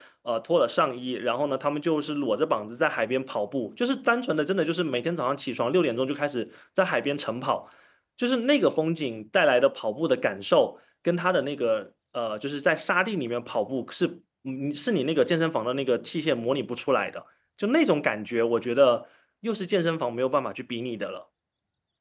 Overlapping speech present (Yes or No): No